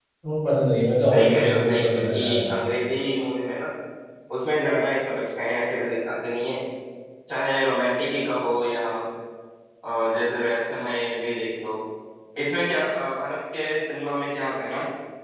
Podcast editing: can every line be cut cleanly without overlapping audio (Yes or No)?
No